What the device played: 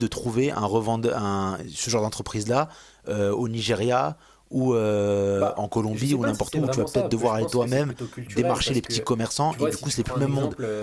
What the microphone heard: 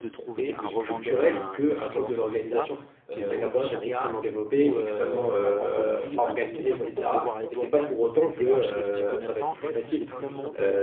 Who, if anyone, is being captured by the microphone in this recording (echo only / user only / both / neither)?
both